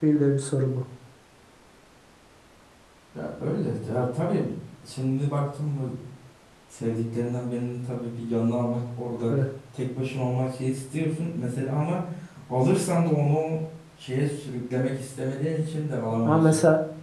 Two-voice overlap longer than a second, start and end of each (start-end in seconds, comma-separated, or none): none